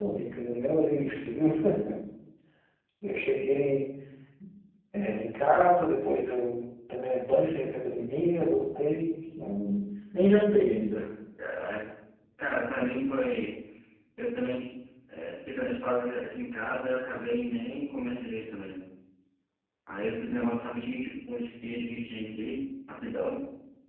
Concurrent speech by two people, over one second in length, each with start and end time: none

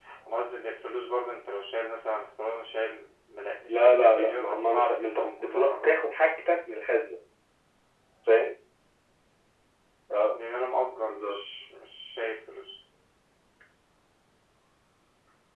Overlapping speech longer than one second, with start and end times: 3.7-6.0

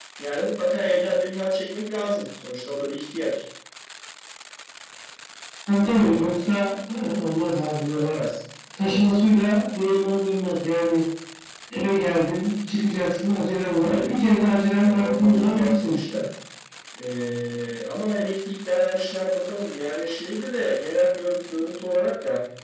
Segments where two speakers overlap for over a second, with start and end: 14.8-16.2

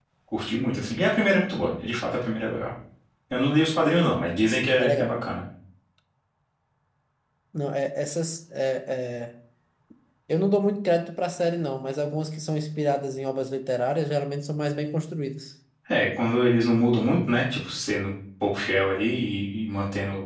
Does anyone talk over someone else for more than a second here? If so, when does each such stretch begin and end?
none

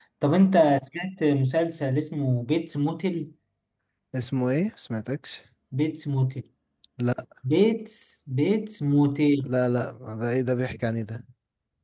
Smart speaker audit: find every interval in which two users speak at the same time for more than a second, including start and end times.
none

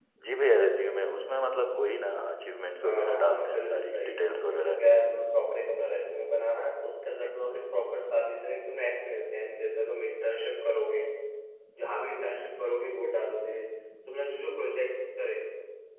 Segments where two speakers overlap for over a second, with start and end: 2.8-4.8

